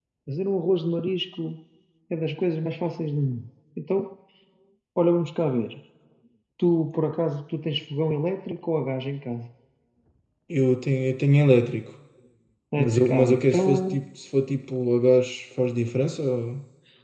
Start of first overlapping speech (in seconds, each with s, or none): 12.8 s